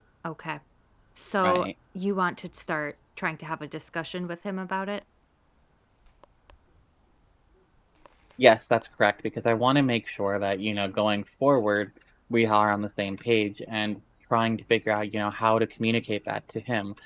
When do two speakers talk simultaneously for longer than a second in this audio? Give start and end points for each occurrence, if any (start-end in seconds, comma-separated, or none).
none